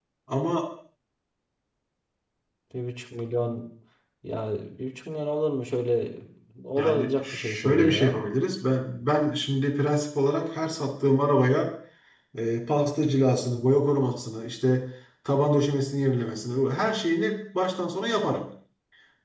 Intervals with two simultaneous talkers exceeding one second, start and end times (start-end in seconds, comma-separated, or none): 6.8-8.2